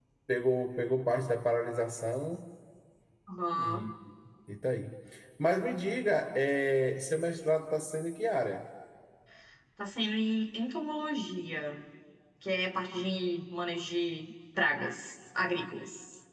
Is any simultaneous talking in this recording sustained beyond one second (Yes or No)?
No